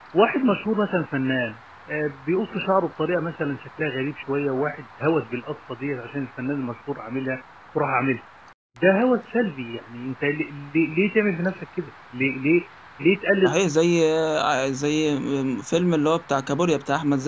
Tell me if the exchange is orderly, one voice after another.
Yes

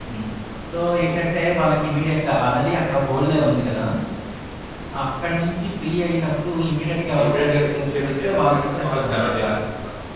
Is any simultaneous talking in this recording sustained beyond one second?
Yes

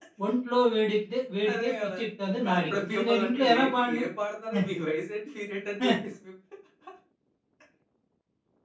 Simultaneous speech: Yes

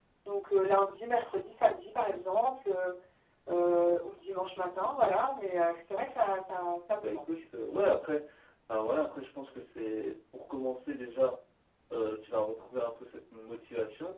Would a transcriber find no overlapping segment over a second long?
Yes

